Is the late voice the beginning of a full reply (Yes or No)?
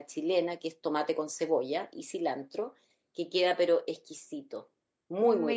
Yes